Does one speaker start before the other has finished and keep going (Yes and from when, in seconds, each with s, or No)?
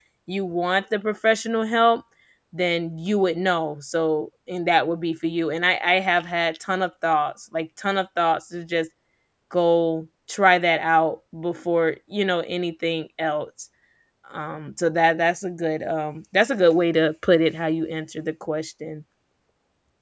No